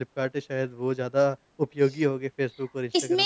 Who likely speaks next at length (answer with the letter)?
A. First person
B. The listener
B